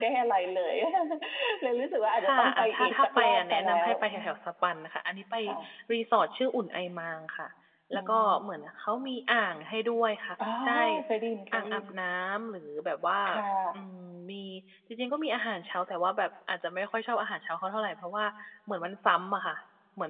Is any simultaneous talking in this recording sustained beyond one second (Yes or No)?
Yes